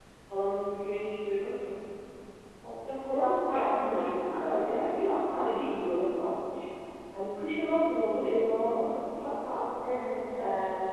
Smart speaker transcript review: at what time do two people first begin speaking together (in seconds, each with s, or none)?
3.1 s